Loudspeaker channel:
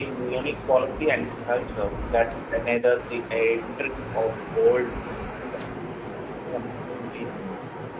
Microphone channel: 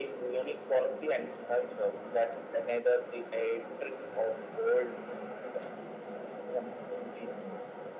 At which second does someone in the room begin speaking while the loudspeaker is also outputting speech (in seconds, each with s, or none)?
none